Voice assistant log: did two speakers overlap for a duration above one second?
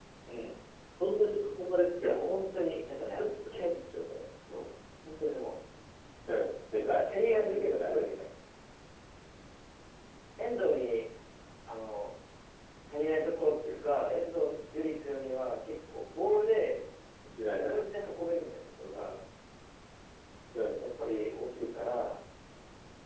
Yes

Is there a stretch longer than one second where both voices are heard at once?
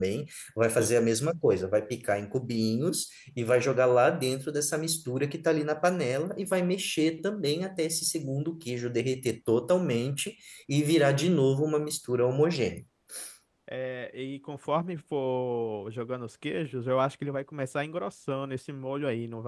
No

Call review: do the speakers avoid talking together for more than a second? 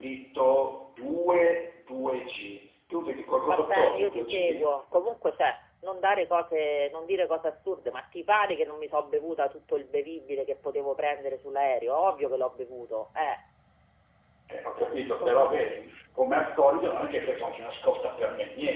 No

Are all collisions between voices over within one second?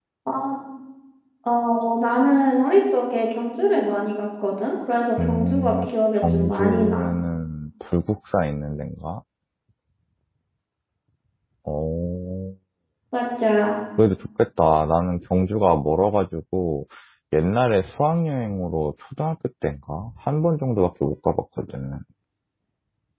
No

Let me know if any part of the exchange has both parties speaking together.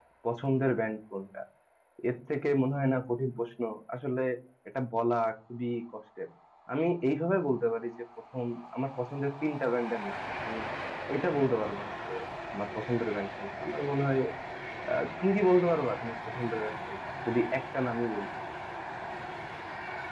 No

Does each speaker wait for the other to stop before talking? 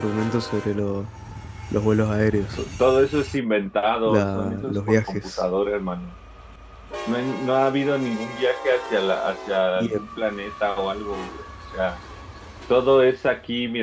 No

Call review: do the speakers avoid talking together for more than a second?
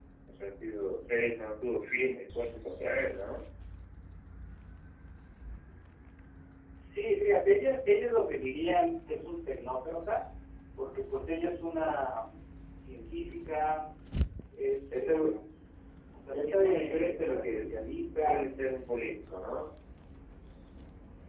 No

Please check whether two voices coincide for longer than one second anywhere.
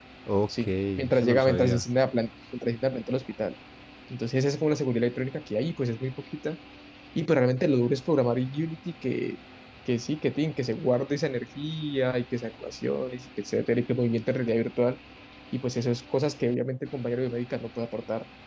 Yes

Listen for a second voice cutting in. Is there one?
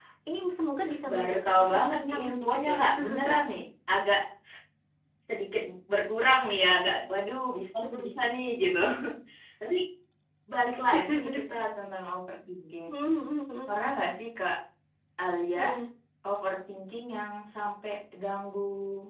Yes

